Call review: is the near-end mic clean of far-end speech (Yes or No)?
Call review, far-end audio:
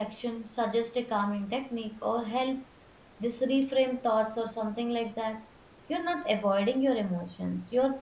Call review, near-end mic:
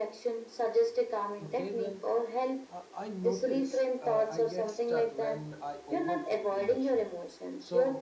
No